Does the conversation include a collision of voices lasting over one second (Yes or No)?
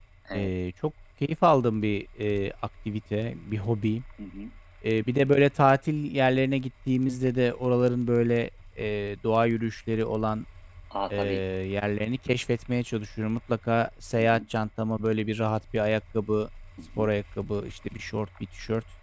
No